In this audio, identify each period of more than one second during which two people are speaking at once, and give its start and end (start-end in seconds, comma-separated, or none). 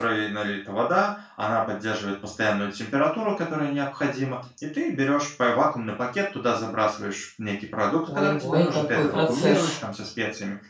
8.1-9.7